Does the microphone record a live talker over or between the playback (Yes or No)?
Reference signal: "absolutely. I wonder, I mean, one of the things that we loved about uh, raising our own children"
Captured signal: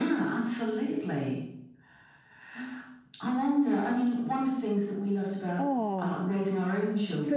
Yes